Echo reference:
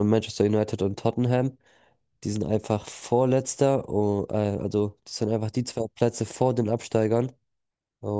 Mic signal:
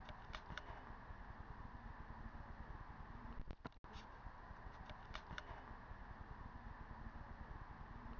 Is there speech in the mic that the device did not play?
No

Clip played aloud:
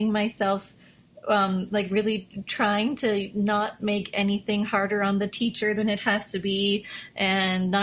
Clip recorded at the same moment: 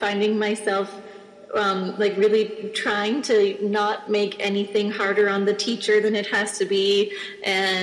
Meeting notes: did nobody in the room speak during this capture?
Yes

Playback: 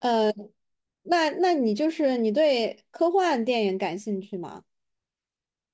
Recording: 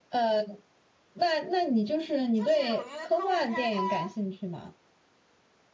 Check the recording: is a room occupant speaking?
Yes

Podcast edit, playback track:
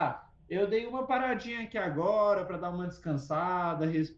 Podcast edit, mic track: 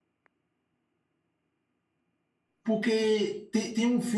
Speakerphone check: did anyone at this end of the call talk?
Yes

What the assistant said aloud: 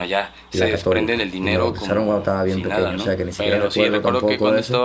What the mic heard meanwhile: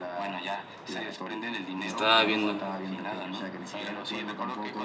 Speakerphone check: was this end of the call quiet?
No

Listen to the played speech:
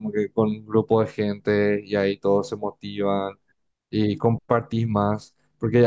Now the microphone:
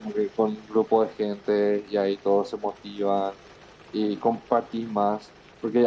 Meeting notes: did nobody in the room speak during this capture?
Yes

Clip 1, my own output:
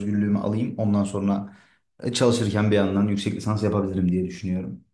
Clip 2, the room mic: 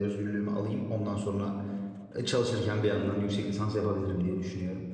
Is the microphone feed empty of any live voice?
Yes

